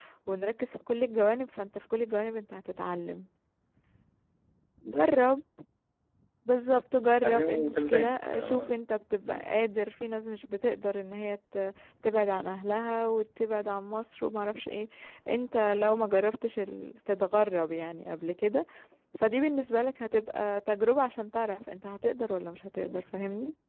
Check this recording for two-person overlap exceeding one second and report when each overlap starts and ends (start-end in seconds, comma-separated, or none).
7.2-8.7